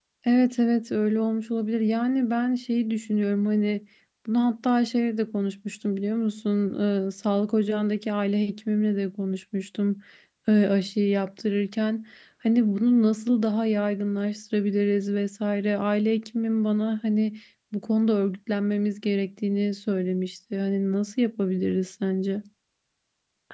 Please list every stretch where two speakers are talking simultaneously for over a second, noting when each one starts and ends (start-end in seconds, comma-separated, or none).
none